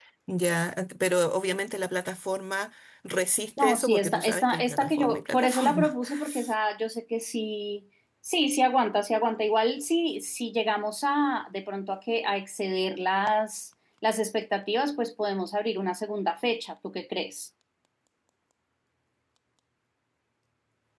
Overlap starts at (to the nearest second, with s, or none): 4 s